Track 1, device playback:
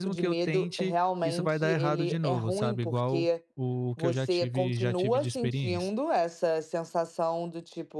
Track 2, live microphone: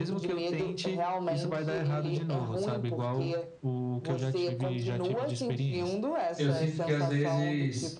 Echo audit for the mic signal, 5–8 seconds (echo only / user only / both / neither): both